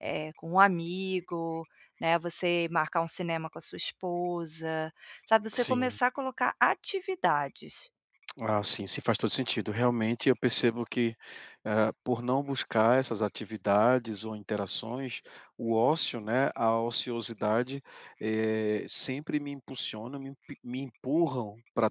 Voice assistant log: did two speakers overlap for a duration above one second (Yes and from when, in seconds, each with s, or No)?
No